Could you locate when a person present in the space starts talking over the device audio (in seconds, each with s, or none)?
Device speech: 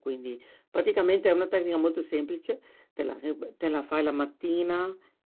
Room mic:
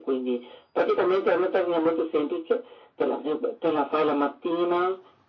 none